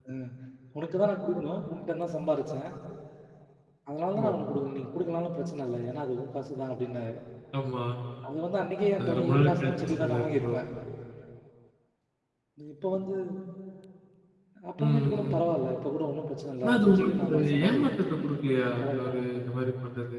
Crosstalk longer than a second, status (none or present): present